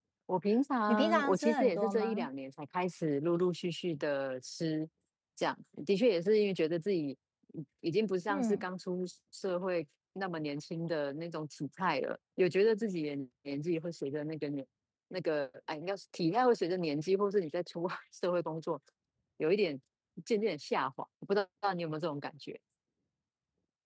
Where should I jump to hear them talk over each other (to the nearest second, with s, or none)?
1 s